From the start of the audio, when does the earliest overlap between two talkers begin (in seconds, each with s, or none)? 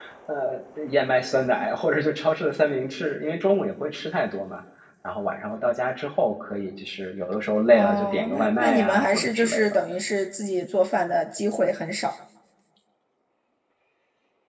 7.7 s